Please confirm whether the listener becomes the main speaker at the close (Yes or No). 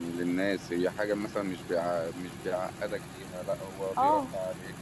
No